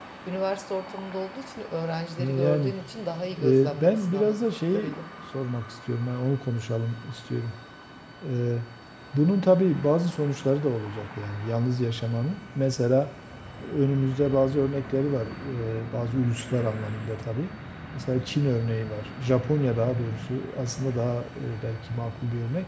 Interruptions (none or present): present